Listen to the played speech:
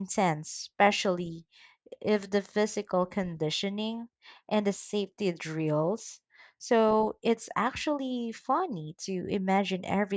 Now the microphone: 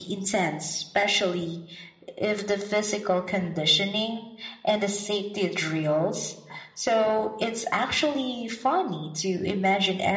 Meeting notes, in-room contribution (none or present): none